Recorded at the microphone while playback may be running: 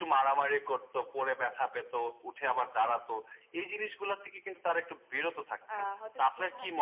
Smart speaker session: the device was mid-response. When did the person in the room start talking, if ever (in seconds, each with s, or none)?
5.7 s